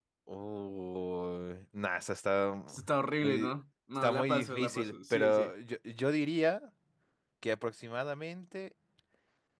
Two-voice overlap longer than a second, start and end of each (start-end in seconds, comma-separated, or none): 4.0-5.5